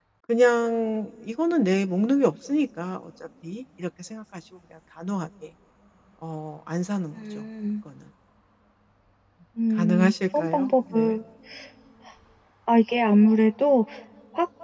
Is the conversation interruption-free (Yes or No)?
No